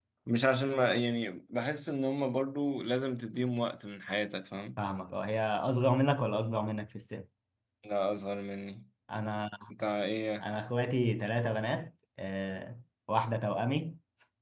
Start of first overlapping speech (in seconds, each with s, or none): none